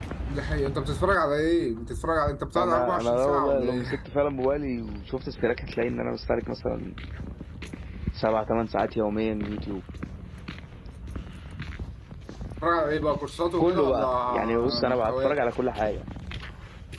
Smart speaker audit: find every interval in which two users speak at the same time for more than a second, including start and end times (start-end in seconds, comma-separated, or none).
2.6-4.0, 13.6-15.4